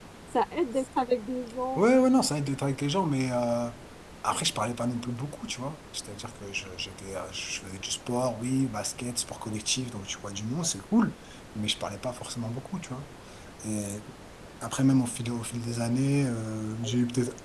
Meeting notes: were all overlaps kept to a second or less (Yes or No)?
Yes